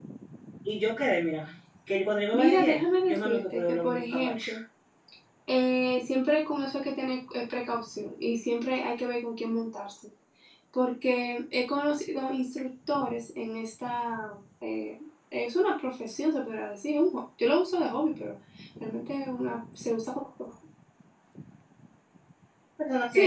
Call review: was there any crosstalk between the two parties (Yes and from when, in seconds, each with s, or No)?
Yes, from 2.3 s